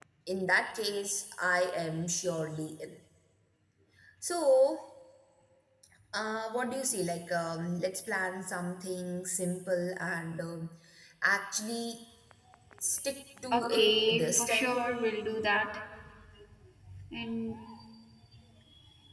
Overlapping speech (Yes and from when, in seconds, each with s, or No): Yes, from 13.5 s